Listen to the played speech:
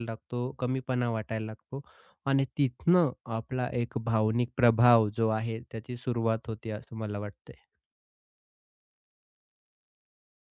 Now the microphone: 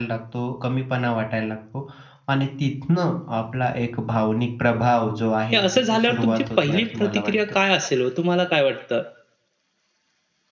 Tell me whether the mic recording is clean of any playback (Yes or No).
No